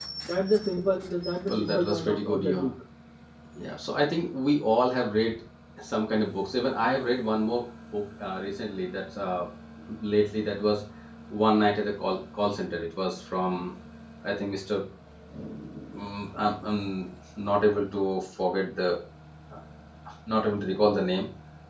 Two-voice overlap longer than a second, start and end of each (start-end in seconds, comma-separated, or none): 1.5-2.7